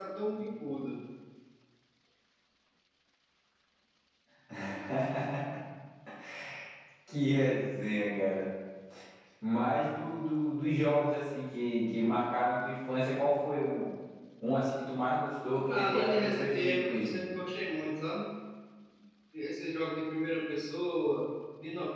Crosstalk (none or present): present